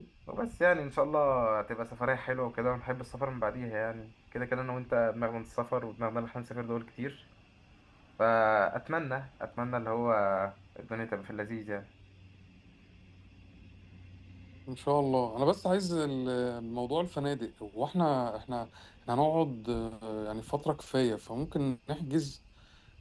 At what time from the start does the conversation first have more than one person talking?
none

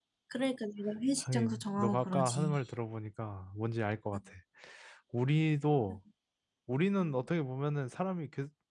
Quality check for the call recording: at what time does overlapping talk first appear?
1 s

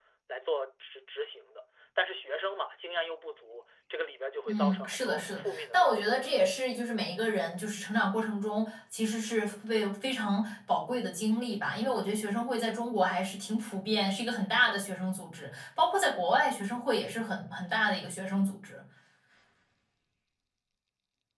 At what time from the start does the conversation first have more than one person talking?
4 s

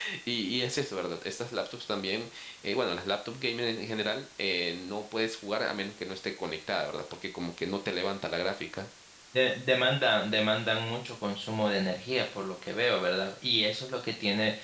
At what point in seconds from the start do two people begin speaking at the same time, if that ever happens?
none

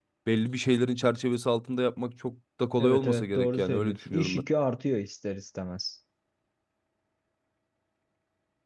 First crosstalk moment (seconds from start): 3 s

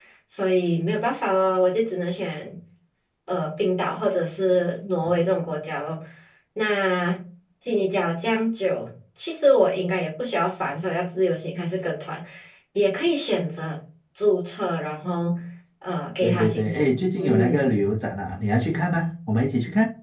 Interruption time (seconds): 16 s

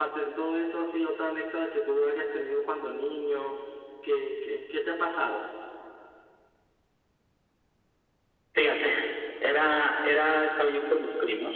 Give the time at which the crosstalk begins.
none

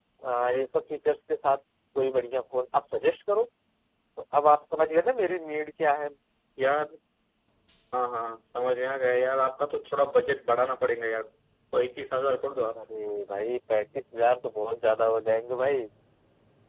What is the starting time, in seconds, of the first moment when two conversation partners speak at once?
none

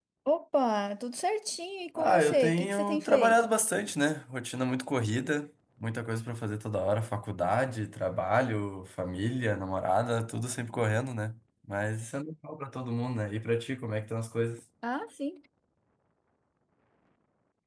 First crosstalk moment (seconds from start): 2 s

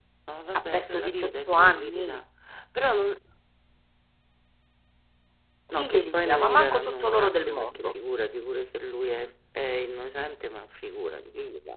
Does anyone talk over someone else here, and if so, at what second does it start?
1 s

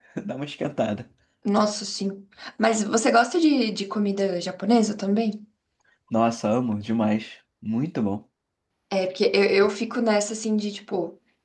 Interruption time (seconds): none

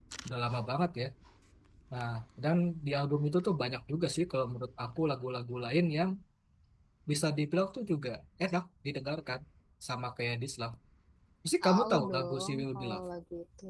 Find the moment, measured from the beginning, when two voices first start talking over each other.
12 s

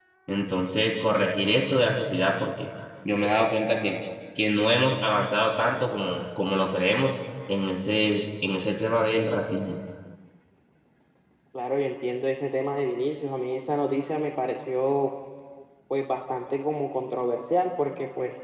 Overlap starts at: none

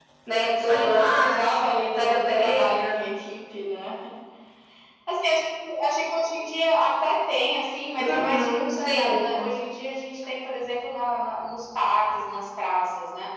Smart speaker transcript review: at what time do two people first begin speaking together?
1 s

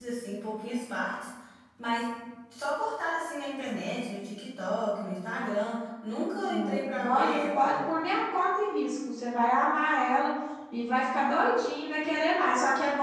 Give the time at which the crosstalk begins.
6 s

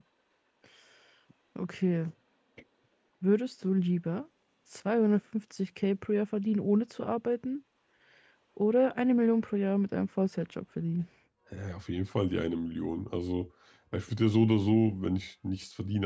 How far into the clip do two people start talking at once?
none

